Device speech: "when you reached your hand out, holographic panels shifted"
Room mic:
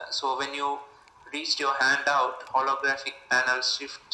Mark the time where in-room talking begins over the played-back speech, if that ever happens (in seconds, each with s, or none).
none